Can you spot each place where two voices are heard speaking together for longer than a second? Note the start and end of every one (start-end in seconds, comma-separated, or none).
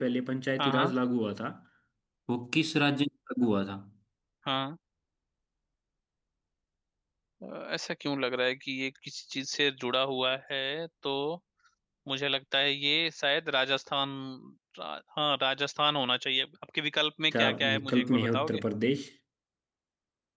17.3-18.6